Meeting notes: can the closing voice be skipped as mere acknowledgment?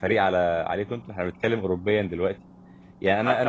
Yes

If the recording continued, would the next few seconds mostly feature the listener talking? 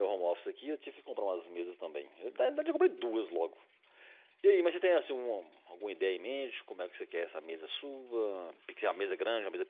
No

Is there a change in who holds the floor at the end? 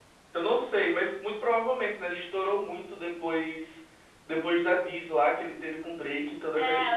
Yes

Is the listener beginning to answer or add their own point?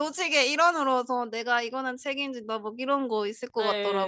Yes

